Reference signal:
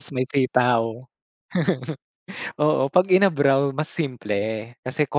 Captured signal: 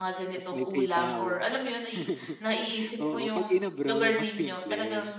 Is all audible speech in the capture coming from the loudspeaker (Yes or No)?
No